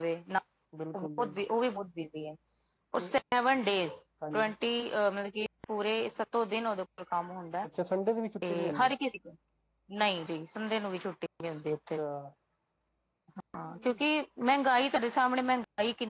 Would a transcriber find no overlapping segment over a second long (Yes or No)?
Yes